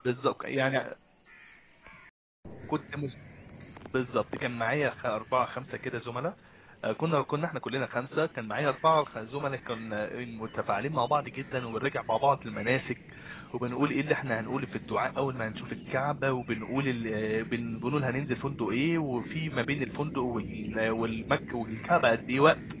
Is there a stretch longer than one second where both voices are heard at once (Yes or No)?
No